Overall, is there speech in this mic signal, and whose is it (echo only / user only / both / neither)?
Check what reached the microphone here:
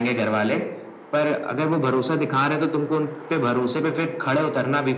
echo only